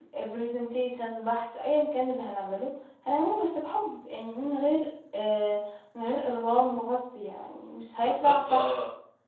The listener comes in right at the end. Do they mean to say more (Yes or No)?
Yes